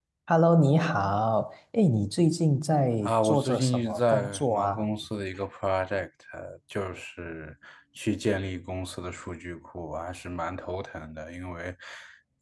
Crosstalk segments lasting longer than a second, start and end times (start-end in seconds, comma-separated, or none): 3.0-4.8